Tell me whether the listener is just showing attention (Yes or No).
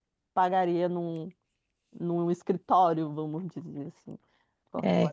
No